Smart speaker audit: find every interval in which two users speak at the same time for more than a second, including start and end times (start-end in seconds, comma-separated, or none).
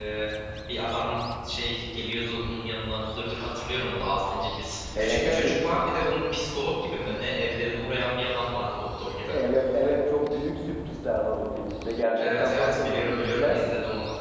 12.2-13.6